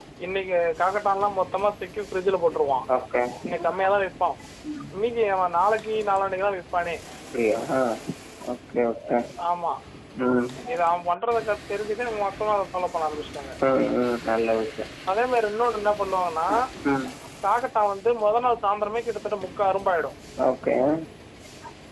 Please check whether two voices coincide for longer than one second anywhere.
No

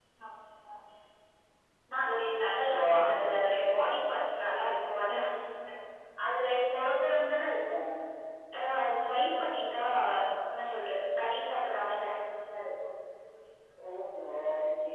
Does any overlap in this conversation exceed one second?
No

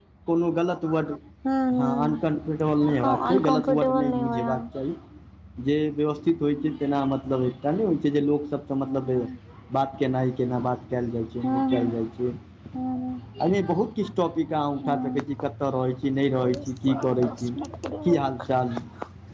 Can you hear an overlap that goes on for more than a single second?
Yes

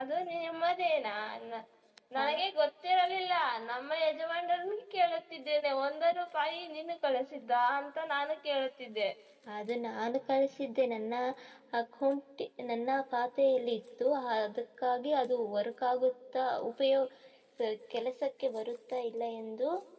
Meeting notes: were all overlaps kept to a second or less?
Yes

